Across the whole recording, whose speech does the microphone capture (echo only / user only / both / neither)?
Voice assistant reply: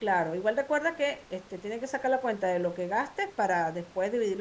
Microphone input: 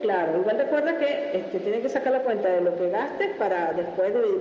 echo only